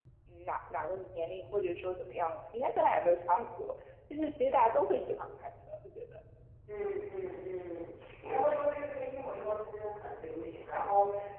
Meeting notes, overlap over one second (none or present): none